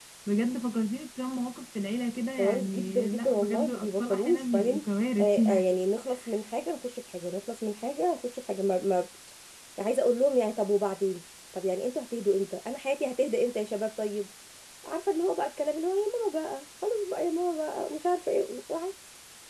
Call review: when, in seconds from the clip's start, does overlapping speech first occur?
2.4 s

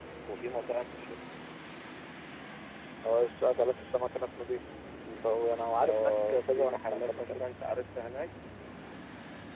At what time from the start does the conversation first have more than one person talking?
5.8 s

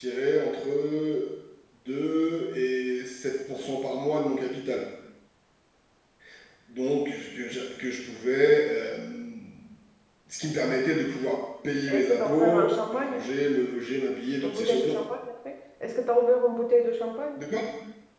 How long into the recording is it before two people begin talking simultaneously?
11.9 s

